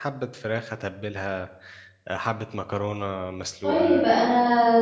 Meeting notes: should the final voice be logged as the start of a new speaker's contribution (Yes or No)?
Yes